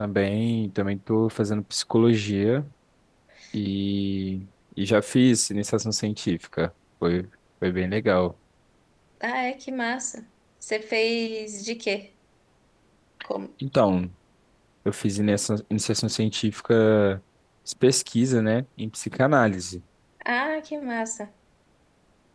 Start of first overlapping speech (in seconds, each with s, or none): none